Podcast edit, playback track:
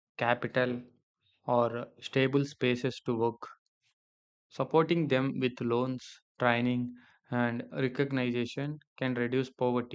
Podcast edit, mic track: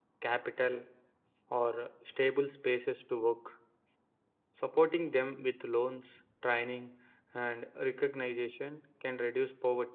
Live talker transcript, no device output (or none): none